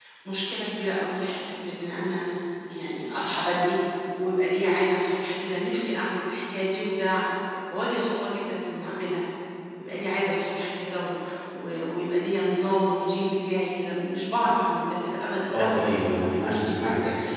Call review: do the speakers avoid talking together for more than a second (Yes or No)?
Yes